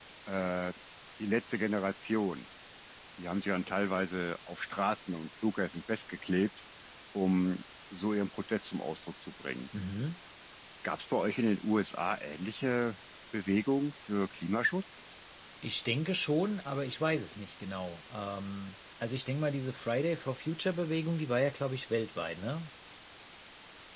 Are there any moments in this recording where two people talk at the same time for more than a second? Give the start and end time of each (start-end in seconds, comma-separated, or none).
none